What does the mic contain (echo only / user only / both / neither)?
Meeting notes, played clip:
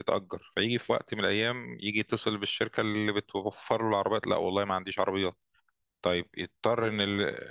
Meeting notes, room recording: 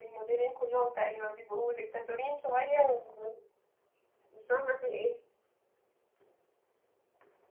user only